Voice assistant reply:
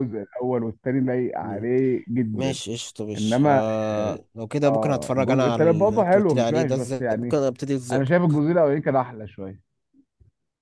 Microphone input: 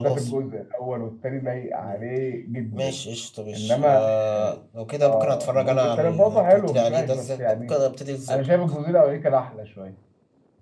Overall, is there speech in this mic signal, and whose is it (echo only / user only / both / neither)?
echo only